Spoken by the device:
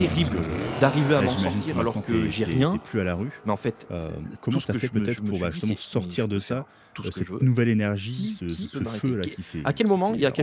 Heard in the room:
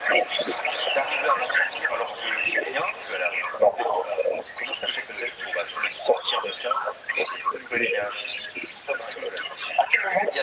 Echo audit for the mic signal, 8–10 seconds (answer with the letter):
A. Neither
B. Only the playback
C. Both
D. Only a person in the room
B